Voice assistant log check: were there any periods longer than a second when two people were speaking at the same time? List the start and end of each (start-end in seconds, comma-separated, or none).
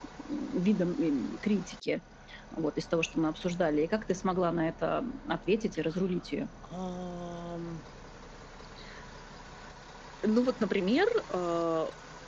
none